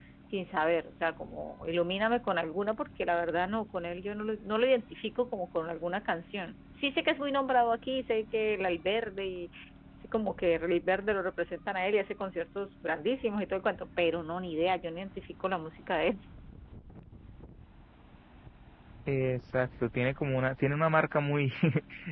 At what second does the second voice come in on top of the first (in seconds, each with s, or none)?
none